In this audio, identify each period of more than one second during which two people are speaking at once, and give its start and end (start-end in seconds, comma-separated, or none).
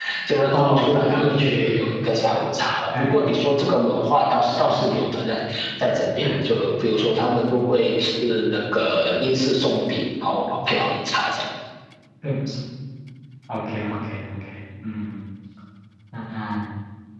0.5-1.8